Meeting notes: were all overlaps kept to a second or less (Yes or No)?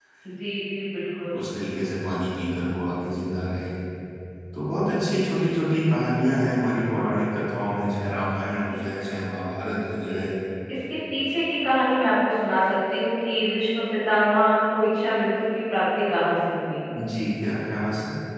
Yes